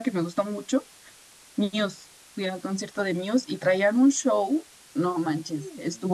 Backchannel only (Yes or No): Yes